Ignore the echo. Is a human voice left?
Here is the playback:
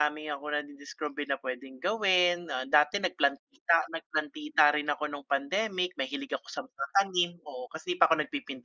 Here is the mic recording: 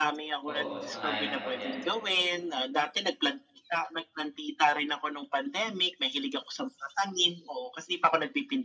Yes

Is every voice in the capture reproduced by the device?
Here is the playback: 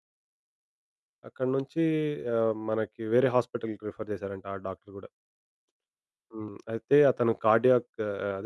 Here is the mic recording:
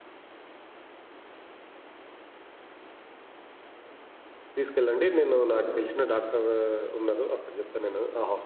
No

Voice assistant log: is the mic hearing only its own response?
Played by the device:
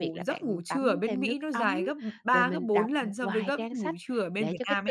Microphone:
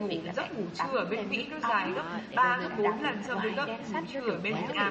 No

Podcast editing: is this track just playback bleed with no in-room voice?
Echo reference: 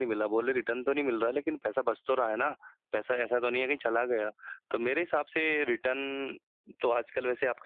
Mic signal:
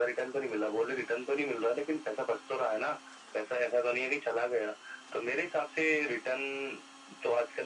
Yes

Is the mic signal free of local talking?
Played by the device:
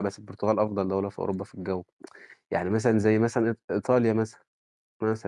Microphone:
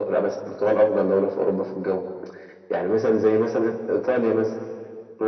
Yes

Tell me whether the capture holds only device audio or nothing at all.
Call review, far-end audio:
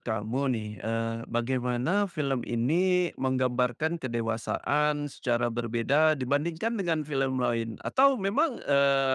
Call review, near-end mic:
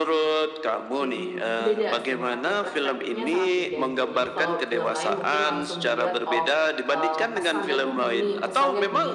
No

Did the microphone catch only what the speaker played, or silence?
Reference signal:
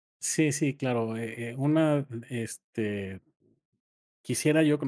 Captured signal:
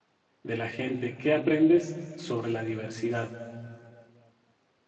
No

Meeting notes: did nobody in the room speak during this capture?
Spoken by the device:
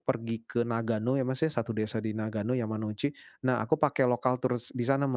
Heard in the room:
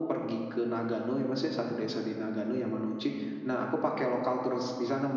Yes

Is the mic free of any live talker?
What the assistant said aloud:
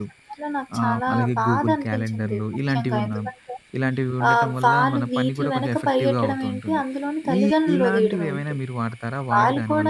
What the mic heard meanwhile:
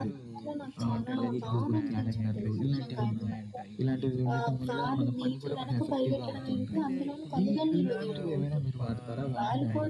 No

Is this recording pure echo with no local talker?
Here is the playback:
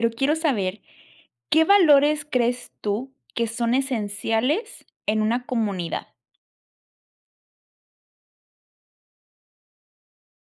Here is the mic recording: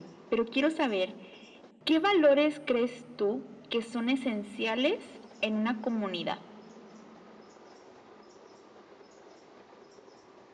Yes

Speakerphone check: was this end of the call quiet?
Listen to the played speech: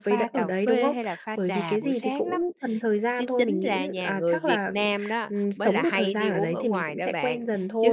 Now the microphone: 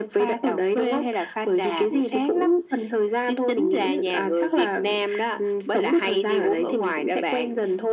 Yes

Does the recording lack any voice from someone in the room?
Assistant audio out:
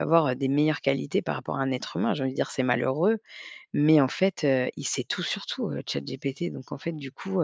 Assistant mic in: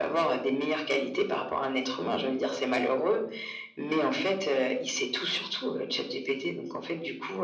Yes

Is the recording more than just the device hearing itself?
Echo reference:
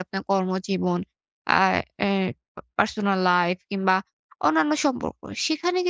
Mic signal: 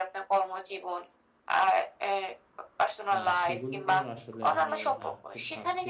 Yes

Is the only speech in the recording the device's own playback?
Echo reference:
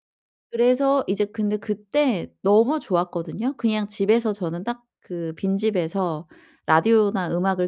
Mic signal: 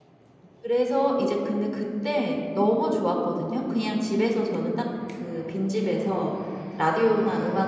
Yes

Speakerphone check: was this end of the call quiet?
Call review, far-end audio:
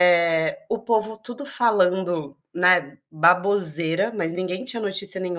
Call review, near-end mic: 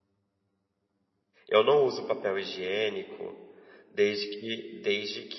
No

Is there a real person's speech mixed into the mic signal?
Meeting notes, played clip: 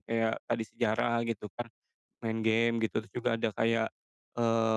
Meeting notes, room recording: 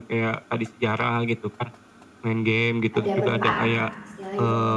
Yes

